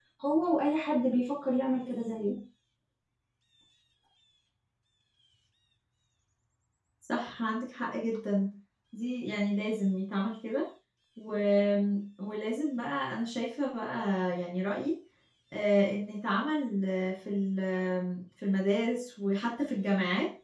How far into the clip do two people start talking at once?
none

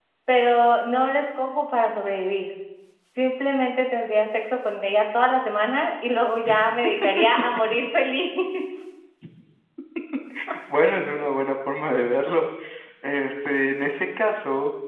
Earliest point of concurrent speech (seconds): none

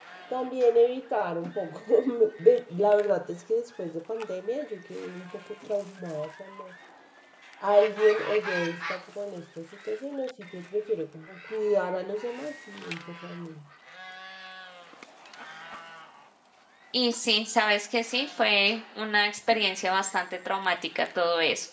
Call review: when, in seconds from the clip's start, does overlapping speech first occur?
none

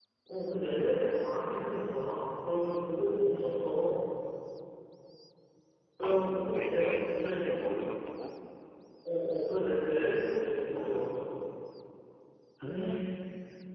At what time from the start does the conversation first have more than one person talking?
6.0 s

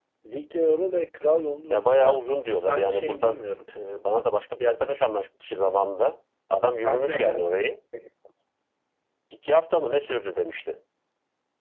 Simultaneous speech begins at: 1.7 s

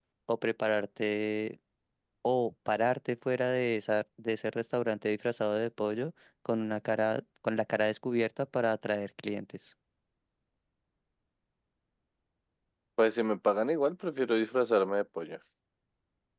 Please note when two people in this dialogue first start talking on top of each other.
none

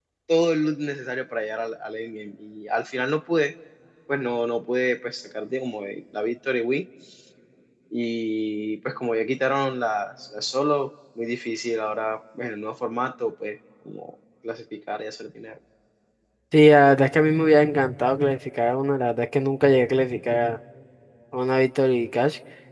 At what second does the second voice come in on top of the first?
none

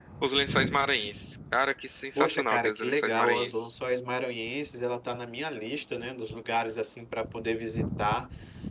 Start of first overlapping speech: 2.1 s

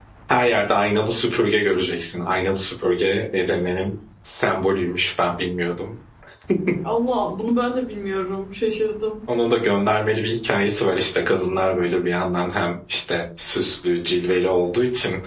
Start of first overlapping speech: none

